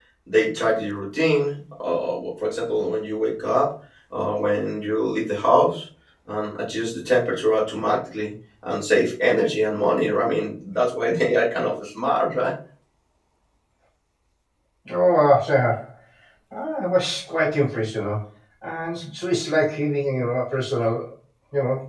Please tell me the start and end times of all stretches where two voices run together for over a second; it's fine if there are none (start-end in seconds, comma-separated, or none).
none